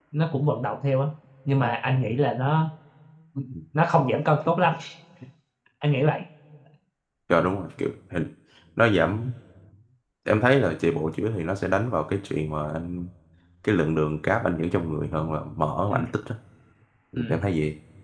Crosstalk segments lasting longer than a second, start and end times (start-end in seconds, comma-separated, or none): none